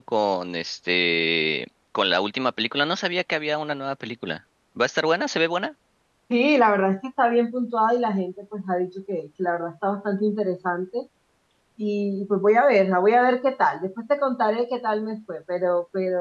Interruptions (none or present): none